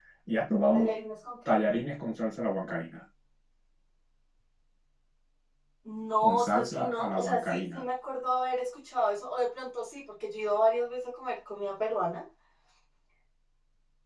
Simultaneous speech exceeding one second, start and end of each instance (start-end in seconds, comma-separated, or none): 6.2-7.8